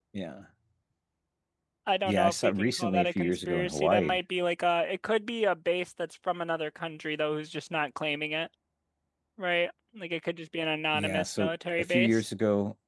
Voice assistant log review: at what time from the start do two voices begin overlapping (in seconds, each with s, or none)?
2.0 s